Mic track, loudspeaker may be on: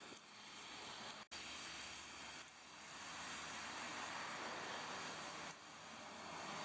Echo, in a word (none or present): none